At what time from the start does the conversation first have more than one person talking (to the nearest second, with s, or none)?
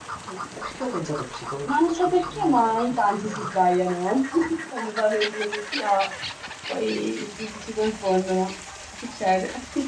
2 s